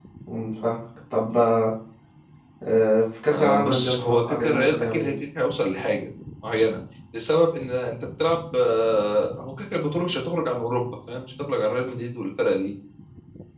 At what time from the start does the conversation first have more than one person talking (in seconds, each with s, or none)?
3.3 s